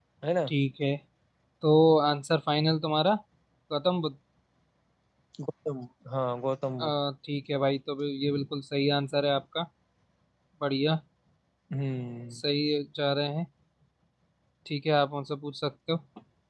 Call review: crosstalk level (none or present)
none